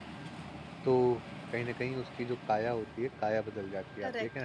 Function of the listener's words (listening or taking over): taking over